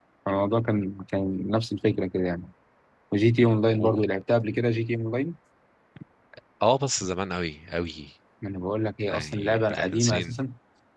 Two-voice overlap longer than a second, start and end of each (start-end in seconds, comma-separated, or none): 9.1-10.3